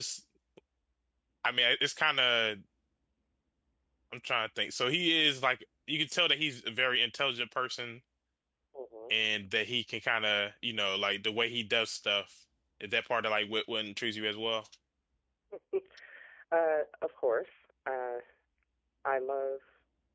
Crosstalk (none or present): none